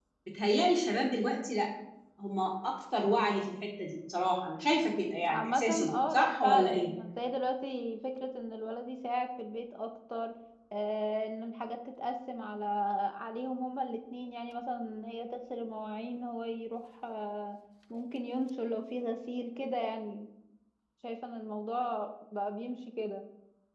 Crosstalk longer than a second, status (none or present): present